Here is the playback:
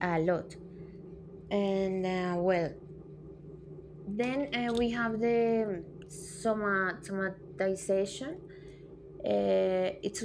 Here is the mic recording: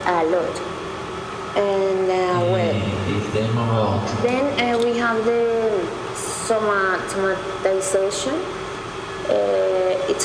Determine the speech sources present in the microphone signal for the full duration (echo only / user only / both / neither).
both